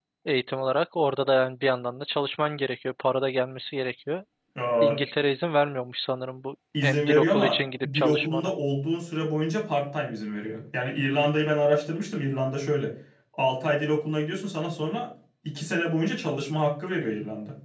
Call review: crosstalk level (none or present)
present